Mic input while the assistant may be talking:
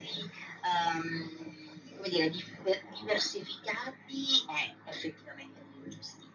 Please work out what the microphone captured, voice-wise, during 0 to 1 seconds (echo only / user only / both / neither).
echo only